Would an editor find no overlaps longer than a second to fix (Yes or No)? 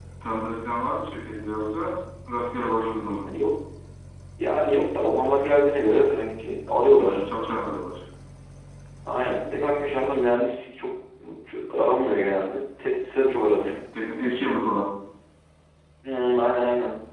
Yes